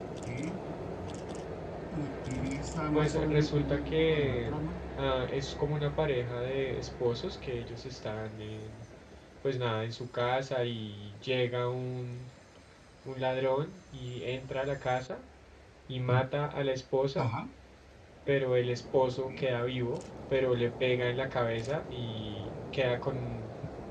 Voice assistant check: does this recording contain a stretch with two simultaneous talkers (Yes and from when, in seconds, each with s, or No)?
Yes, from 2.9 s